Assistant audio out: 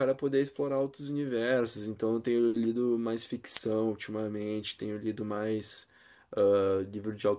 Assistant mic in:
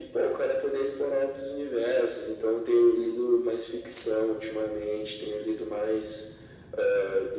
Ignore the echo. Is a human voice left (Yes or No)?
No